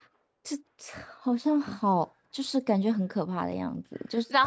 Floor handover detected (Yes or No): Yes